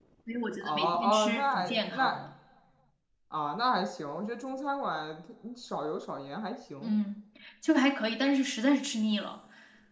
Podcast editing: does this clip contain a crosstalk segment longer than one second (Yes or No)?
Yes